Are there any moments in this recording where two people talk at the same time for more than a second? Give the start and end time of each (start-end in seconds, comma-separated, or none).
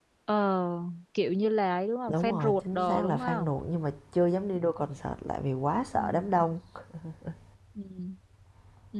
2.1-3.5